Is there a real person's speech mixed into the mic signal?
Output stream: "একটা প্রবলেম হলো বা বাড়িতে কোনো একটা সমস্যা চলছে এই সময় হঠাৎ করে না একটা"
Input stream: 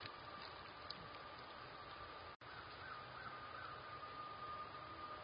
No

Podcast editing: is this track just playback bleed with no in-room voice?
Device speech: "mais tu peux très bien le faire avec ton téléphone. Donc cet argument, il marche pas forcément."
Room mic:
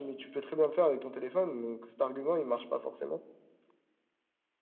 Yes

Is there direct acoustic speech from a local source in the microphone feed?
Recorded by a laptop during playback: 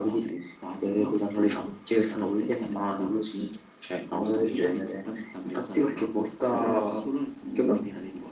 No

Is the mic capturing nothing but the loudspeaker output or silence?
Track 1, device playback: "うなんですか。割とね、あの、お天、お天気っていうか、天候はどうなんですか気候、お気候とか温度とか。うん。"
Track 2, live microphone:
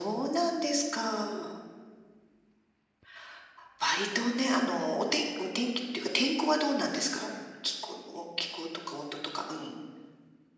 Yes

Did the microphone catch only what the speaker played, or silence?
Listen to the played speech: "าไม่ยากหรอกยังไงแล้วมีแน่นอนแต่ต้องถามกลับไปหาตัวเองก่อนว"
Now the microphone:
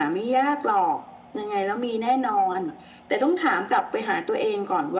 Yes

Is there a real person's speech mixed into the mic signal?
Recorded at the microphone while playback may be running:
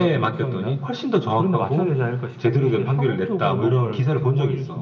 Yes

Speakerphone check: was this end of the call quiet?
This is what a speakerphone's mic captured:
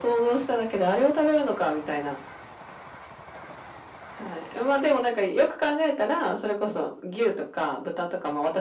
Yes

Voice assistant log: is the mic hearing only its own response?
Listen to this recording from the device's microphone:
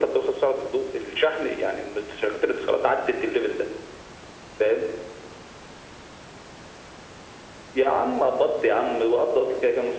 Yes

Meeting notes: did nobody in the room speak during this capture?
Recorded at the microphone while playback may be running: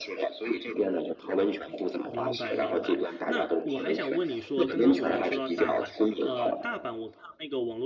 No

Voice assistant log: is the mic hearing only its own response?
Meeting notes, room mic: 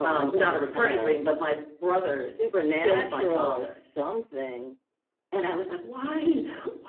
No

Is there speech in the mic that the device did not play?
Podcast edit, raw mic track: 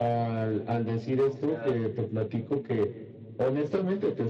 Yes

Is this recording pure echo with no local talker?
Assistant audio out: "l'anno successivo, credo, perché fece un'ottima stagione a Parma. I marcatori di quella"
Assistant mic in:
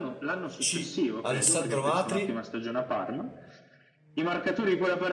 No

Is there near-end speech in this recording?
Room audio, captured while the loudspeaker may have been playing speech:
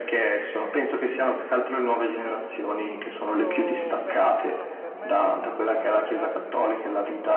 Yes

